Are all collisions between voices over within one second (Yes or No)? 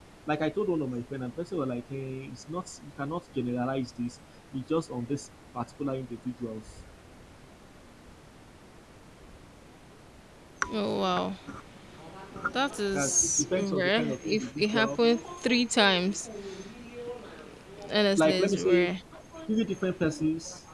No